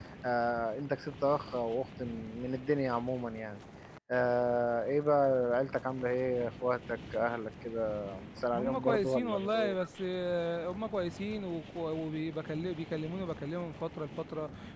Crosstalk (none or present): present